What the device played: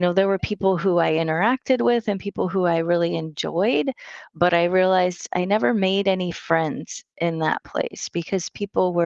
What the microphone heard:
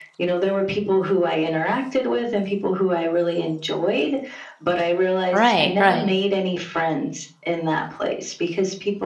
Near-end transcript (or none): Right, right,